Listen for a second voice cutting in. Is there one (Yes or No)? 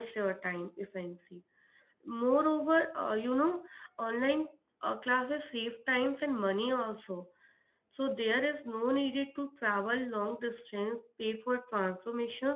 No